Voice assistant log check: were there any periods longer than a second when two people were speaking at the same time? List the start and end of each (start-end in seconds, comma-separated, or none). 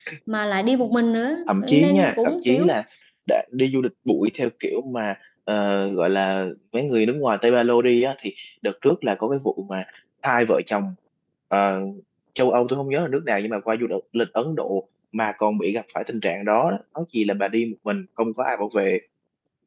1.5-2.7